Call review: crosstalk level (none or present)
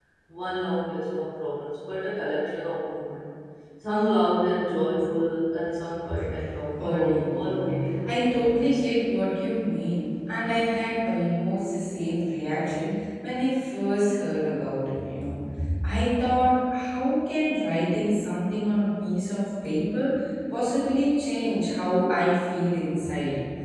present